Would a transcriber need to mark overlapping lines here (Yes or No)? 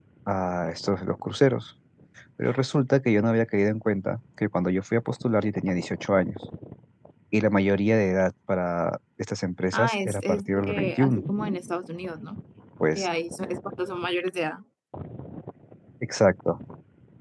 Yes